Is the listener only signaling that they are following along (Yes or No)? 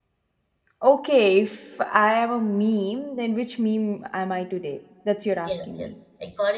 No